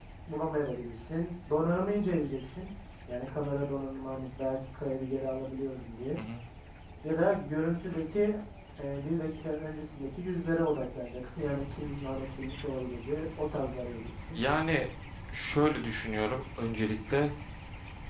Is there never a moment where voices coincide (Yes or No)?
Yes